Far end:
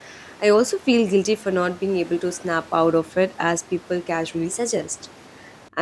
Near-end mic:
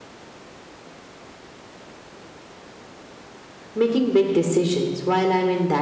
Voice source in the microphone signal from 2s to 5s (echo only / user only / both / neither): user only